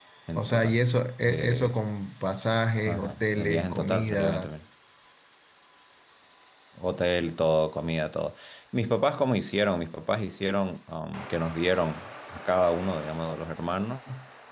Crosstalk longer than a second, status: present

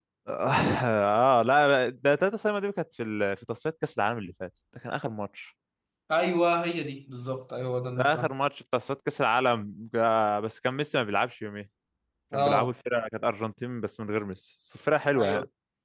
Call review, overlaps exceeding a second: none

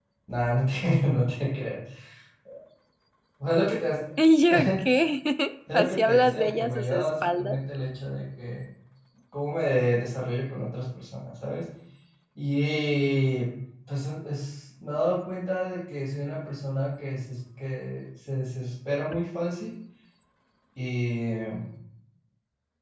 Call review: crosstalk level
present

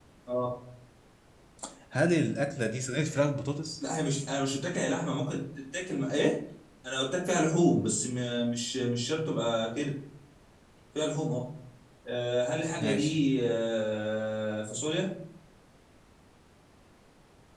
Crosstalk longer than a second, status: none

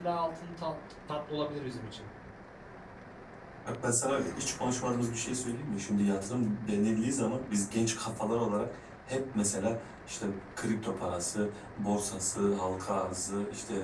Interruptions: none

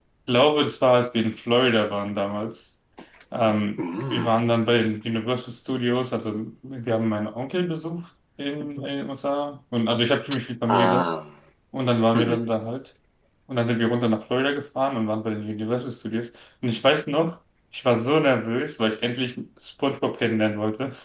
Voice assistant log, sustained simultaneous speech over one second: none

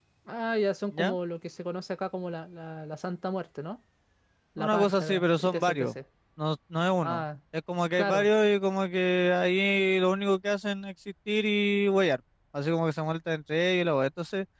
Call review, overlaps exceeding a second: present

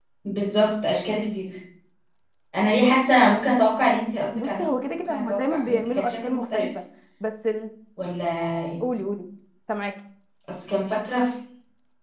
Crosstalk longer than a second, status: present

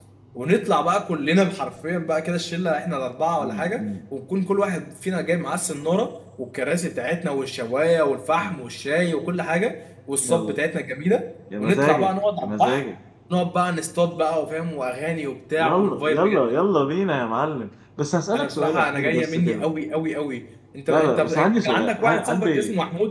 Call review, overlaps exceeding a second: present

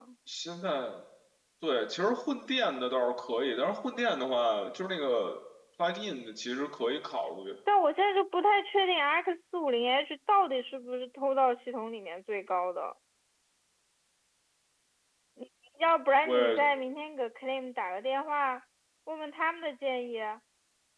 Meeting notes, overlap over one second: none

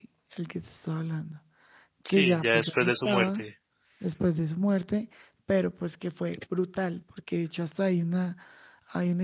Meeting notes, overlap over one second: present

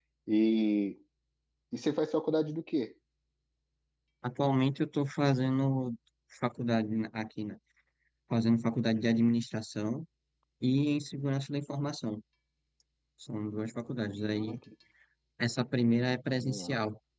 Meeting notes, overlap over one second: none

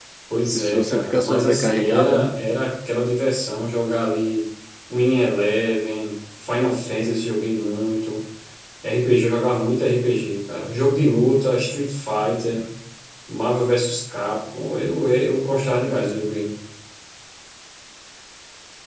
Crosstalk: present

